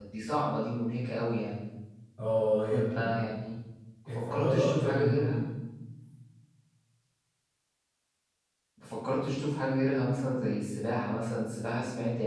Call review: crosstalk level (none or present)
present